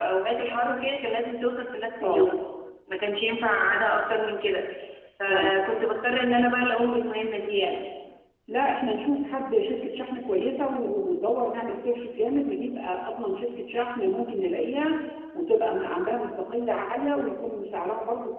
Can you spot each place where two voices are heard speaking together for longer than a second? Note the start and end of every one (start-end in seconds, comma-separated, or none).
none